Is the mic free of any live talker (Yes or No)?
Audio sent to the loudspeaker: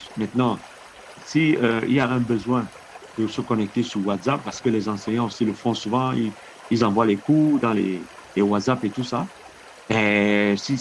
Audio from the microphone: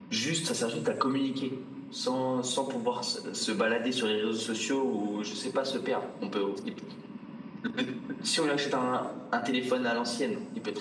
No